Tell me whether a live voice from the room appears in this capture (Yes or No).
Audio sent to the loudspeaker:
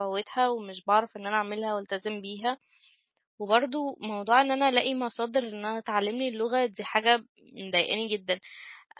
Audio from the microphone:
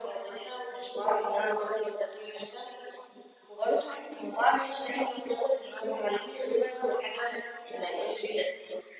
No